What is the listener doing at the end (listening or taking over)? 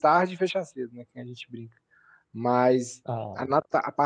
listening